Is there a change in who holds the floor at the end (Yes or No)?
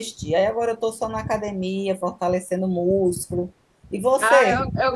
Yes